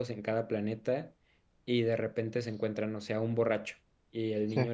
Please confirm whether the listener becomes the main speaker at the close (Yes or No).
No